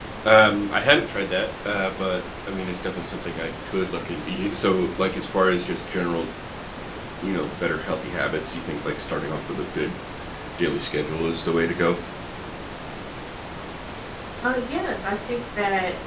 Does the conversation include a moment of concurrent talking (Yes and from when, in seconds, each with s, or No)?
No